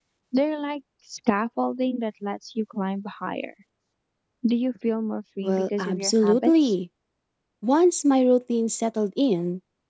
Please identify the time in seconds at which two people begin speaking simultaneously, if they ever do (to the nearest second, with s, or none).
5 s